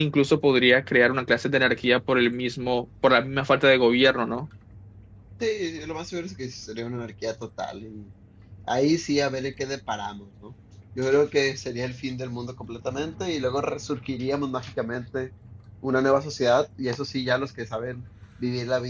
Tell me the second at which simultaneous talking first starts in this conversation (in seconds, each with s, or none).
none